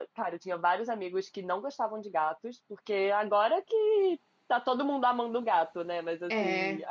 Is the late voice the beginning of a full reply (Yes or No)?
No